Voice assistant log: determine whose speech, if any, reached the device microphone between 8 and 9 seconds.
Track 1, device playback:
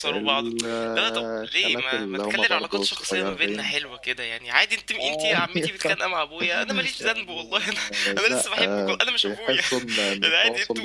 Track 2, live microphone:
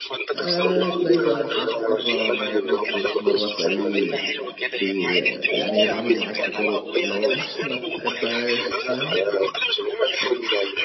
both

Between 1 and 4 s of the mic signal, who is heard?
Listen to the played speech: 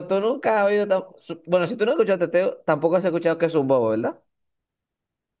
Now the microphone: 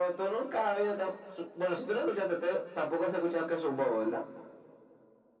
echo only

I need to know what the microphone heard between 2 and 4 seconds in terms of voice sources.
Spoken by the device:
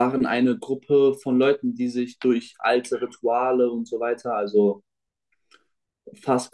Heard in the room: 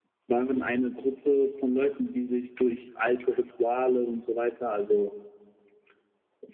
echo only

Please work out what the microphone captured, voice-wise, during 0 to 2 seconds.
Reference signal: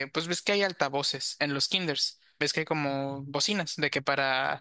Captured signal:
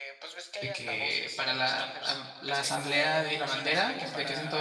both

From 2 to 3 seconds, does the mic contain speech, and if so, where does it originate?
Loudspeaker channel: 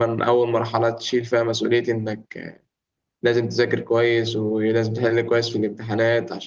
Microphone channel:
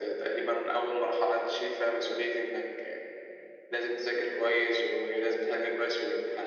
echo only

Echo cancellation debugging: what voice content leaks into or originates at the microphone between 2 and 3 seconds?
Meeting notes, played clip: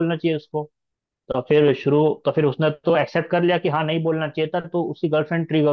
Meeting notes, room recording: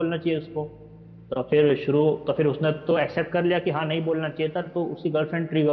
echo only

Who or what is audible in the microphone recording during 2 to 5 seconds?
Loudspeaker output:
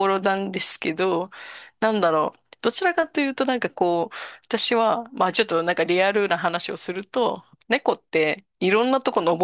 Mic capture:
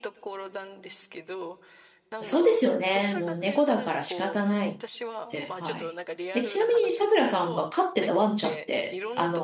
both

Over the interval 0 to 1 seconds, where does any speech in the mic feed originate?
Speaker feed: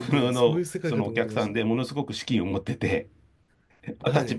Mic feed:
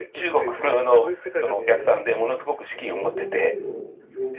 echo only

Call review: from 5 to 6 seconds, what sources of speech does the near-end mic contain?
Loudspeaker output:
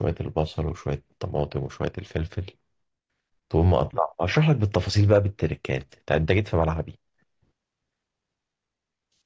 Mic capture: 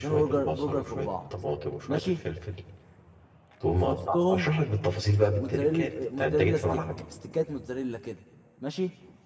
both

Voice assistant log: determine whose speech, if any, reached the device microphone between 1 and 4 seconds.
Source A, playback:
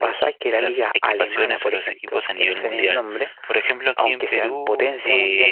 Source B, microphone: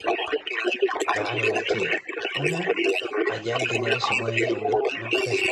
both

